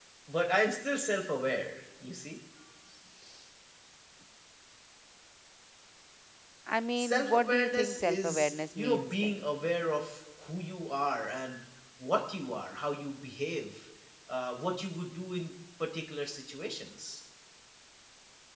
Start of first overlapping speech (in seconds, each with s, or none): 7.0 s